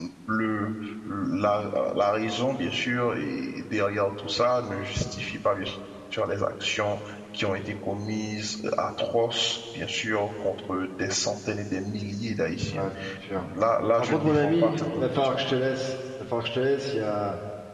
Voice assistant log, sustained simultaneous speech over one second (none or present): present